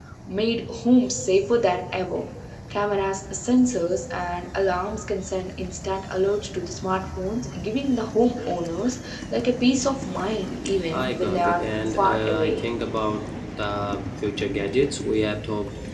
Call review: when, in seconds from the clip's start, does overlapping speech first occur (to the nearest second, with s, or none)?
11 s